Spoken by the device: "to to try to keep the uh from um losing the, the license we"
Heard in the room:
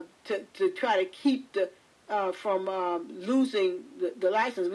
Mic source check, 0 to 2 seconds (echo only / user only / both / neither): echo only